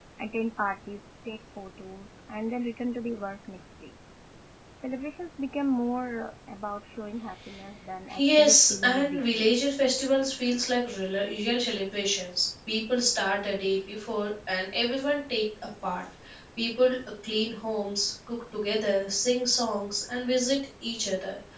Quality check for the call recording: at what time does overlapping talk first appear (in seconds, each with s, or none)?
8.1 s